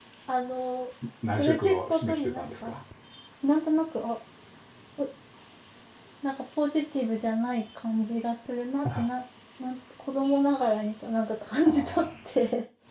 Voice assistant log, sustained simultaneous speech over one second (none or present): present